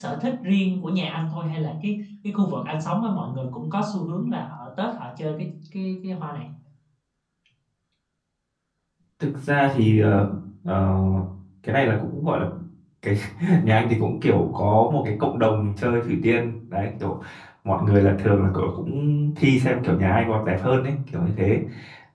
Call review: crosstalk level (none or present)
none